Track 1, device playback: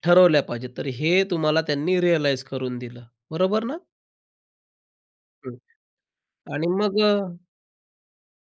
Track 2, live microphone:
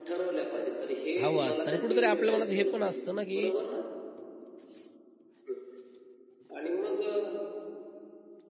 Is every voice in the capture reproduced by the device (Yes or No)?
No